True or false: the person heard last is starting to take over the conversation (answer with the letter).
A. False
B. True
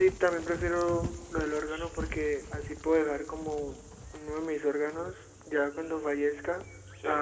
A